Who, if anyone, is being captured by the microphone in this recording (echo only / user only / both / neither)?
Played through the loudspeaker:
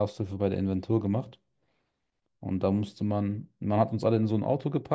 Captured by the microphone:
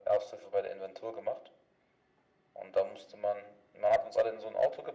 echo only